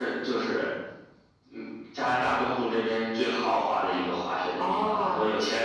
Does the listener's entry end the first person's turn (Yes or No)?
No